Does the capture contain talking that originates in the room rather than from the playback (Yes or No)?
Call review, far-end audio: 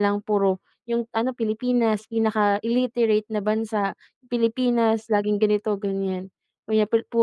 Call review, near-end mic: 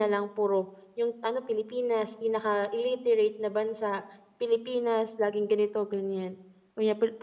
No